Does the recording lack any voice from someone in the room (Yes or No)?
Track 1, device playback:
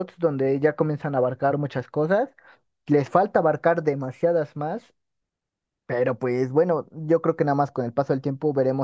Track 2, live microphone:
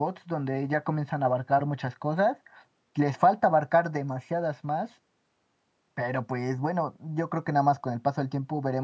Yes